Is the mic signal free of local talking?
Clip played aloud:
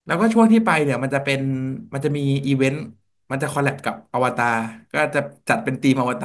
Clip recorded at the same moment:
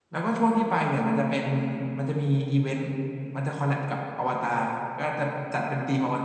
Yes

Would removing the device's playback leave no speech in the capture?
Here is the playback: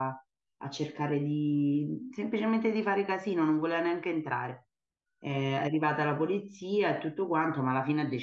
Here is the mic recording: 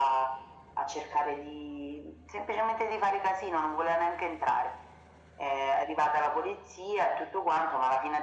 Yes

